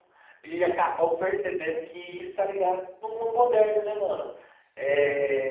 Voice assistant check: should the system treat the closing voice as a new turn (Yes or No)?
No